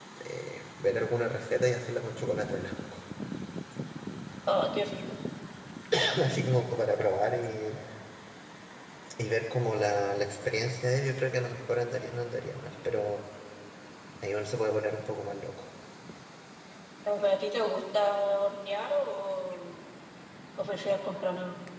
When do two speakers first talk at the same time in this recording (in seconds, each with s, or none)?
none